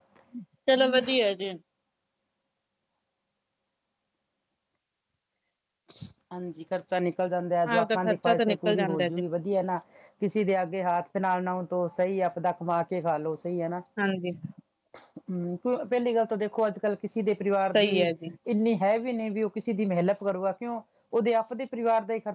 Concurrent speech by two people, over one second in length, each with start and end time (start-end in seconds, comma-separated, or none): 7.7-9.1